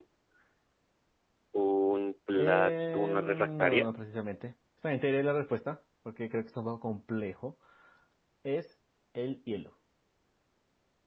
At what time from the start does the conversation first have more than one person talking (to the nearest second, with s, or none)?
2 s